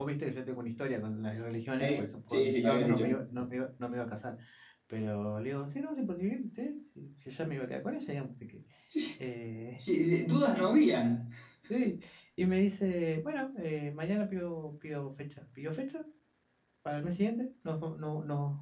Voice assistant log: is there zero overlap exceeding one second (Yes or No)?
No